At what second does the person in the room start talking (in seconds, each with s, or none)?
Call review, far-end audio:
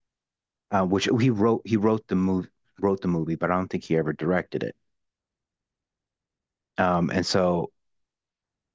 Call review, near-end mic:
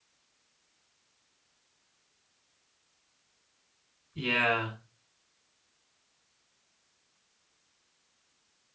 4.1 s